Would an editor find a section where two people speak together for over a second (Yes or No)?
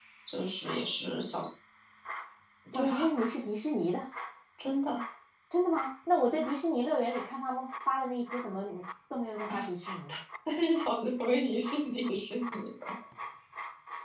No